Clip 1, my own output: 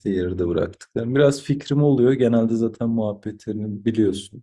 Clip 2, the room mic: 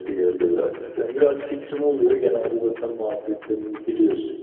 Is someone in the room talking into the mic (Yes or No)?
No